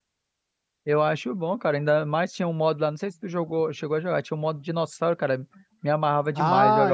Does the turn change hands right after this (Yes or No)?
Yes